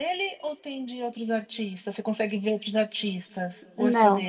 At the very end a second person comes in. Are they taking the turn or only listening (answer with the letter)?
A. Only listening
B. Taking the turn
B